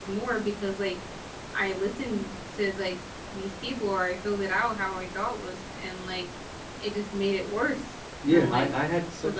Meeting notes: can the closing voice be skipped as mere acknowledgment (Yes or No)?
No